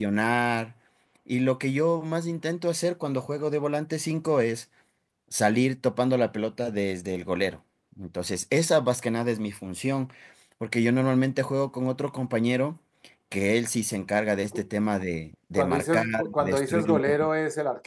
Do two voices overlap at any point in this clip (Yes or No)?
Yes